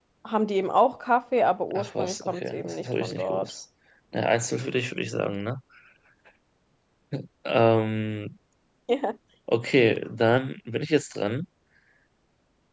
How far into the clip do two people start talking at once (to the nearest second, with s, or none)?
2 s